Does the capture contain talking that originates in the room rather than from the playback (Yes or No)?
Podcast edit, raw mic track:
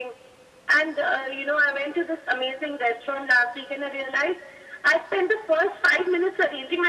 No